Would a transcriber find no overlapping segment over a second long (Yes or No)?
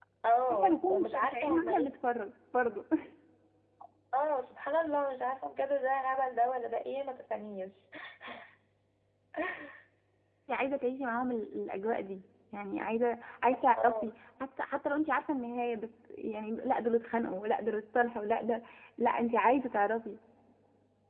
No